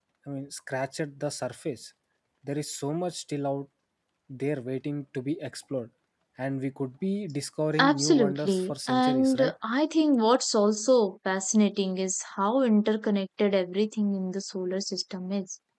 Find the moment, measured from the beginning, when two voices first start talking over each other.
7.8 s

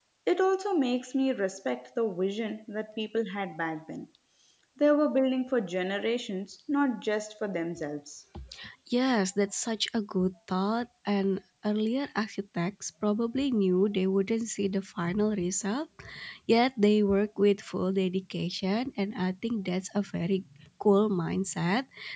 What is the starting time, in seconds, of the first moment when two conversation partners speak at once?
none

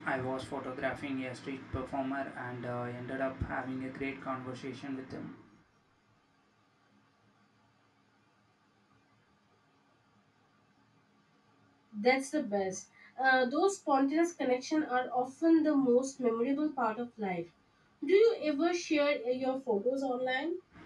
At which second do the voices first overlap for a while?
none

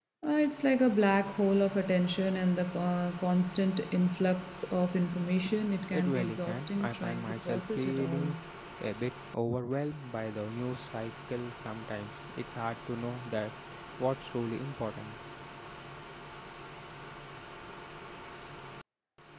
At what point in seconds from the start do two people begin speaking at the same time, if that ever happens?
5.9 s

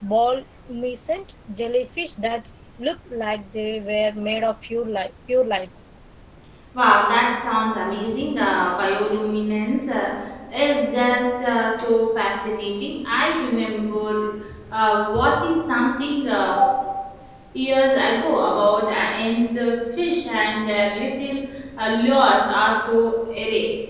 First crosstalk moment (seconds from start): none

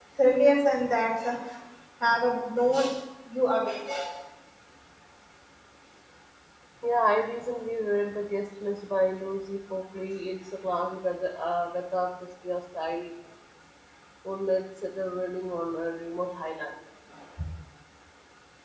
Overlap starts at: none

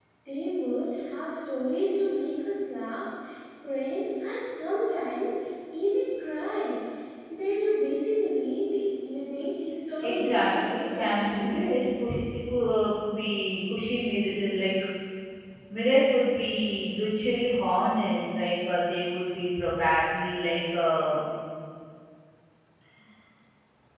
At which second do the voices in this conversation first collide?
10.0 s

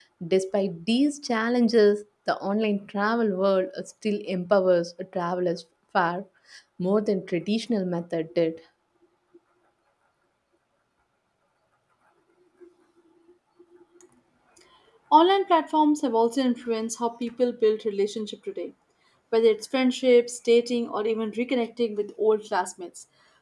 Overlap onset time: none

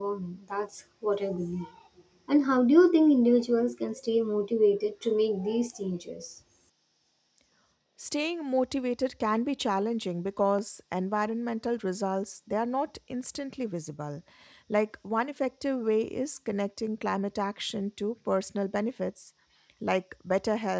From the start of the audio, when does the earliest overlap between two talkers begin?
none

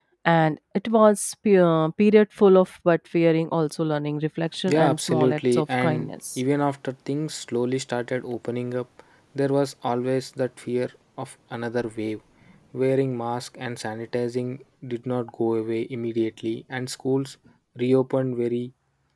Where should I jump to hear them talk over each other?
4.7 s

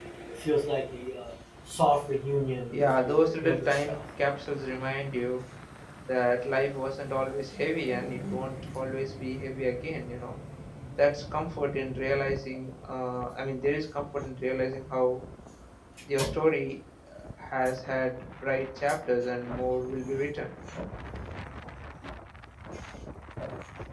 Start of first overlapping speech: 2.7 s

